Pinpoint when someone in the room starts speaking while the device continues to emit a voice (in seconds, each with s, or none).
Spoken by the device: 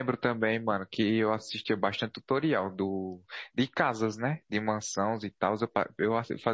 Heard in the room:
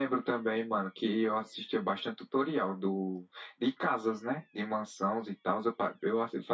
none